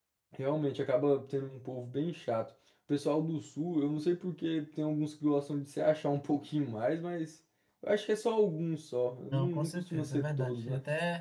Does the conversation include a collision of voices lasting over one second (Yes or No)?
Yes